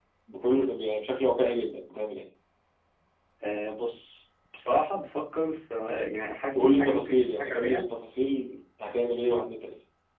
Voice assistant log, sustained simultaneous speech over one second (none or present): present